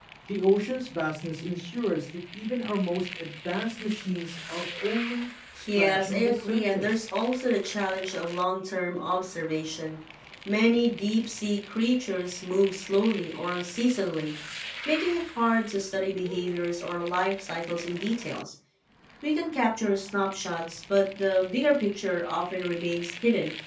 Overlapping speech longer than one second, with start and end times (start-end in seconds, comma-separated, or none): 5.8-7.0